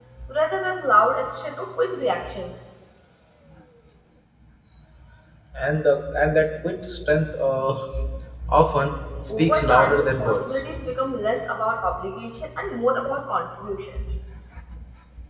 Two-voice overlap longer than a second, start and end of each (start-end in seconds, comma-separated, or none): 9.3-10.6